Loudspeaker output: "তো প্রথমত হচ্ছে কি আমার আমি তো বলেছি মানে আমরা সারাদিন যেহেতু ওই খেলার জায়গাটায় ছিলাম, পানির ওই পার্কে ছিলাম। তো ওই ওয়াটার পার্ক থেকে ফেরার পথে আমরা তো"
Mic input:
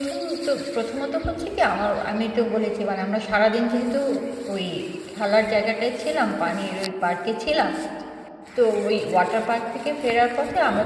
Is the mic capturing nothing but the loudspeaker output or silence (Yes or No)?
Yes